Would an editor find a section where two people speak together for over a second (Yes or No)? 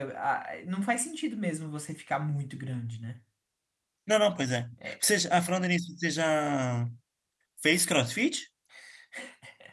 No